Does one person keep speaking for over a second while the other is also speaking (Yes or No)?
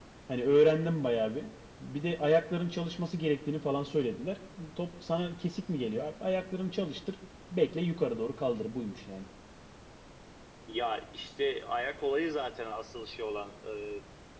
No